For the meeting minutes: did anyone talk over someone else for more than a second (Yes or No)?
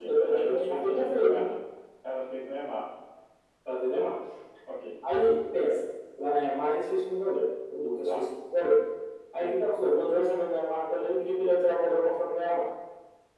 Yes